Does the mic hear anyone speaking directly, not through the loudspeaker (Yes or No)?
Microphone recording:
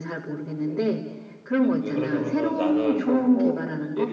Yes